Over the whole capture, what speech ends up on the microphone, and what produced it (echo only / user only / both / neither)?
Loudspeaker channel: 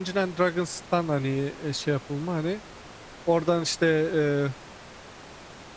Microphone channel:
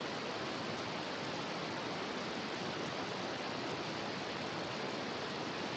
neither